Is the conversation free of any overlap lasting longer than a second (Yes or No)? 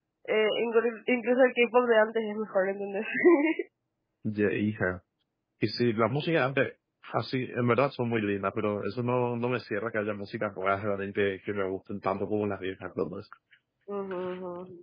Yes